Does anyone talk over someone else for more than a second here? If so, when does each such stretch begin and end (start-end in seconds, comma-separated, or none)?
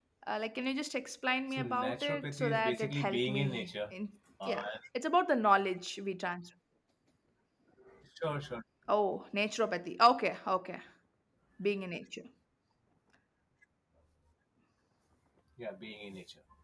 1.5-3.9